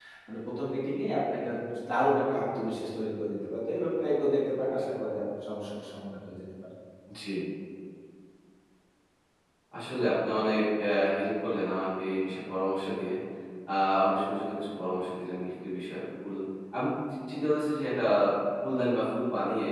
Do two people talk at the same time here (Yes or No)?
No